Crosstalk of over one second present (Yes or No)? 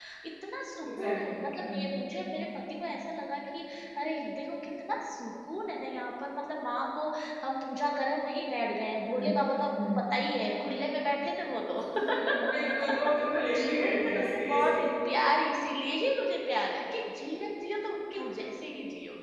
Yes